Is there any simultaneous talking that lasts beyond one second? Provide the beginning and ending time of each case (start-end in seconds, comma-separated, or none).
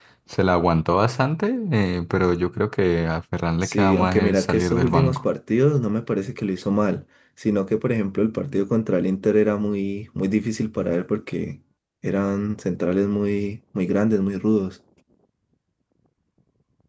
3.6-5.2